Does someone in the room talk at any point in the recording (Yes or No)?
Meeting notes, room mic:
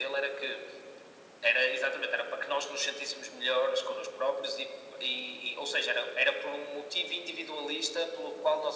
No